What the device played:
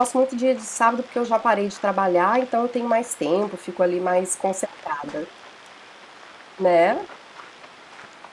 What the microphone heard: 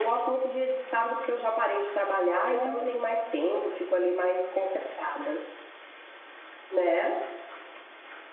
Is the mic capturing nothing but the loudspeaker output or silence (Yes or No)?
No